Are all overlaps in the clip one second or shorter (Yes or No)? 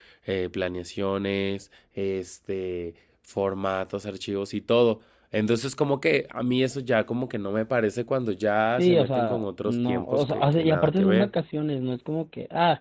No